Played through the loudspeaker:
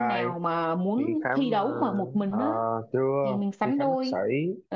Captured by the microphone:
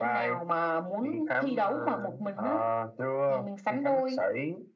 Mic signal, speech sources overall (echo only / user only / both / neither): echo only